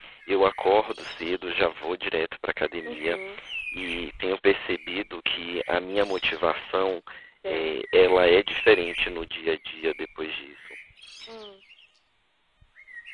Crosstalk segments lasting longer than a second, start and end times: none

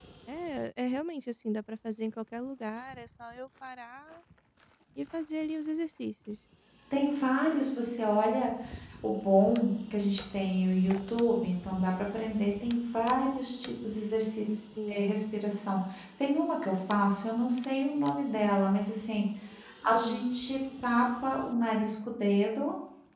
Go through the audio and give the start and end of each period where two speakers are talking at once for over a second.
none

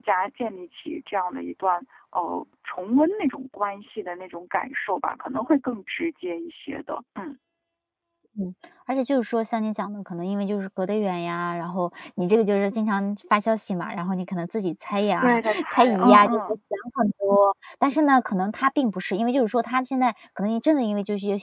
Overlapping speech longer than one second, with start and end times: 15.2-16.6

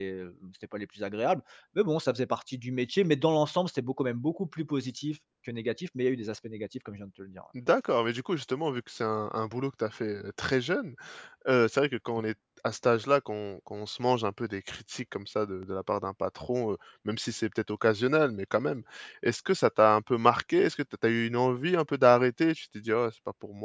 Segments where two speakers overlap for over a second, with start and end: none

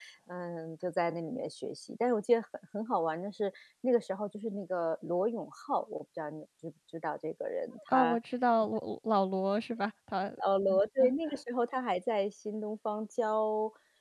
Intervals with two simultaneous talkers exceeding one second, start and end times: none

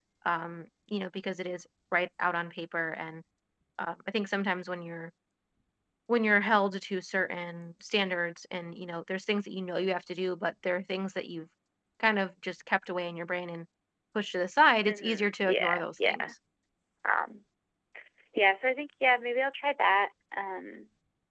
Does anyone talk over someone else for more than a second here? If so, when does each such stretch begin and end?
14.9-16.3

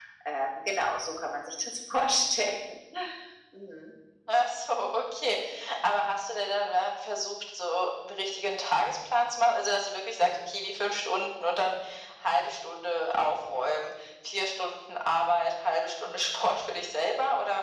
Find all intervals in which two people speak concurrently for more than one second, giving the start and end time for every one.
none

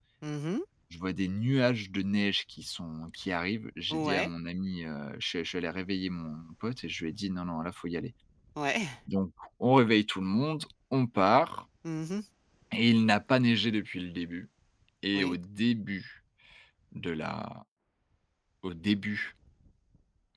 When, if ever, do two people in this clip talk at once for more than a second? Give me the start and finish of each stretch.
none

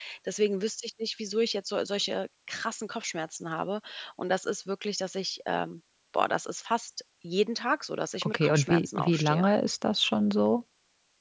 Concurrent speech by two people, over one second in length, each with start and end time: 8.2-9.5

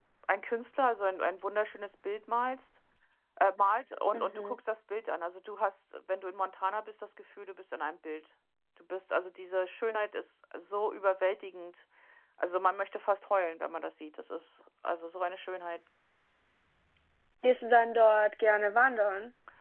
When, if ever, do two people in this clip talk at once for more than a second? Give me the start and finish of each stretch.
none

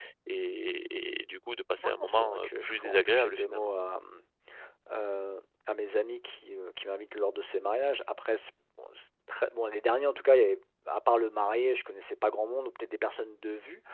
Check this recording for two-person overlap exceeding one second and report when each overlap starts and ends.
1.8-3.7

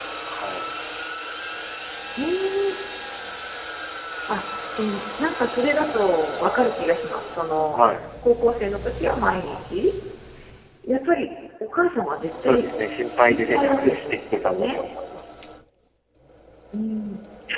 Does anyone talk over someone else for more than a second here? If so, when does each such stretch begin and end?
13.3-14.8

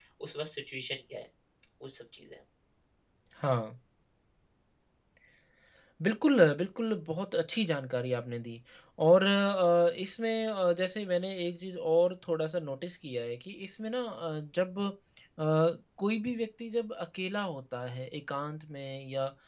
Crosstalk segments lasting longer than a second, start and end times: none

